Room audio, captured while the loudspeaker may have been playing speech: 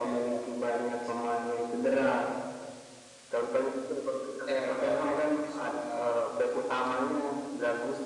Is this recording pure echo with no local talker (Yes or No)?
Yes